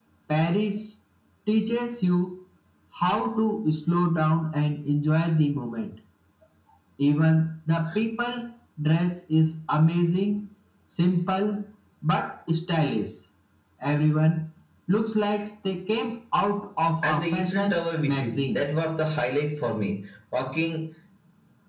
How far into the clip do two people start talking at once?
17.0 s

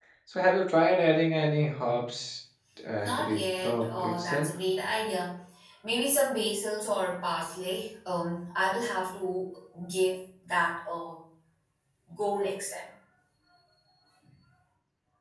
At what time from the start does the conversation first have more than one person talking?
3.0 s

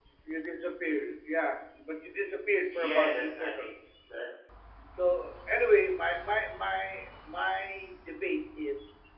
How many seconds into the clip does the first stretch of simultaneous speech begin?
2.7 s

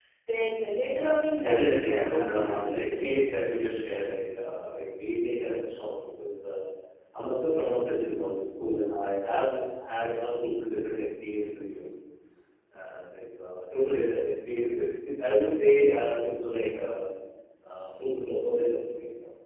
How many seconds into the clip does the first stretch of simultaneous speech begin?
1.4 s

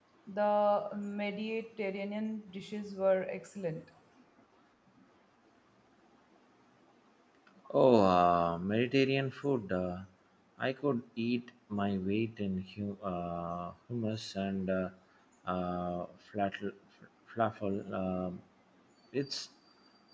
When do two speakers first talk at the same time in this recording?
none

